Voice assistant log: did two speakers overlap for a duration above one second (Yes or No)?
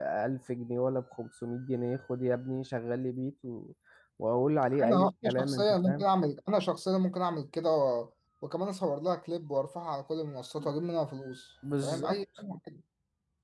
Yes